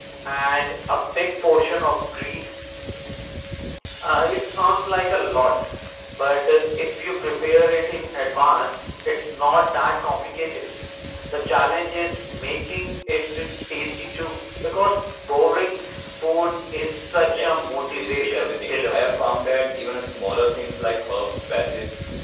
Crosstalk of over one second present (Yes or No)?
Yes